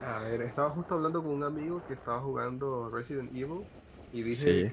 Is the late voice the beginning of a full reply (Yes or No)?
No